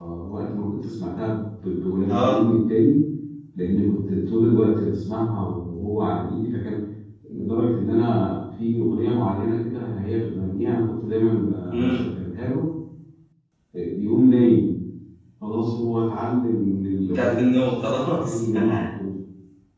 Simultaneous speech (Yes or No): Yes